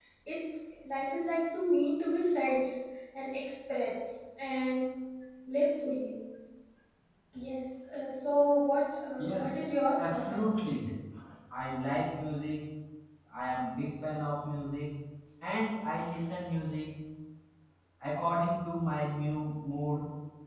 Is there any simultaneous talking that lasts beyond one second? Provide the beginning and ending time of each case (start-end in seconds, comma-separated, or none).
9.2-10.8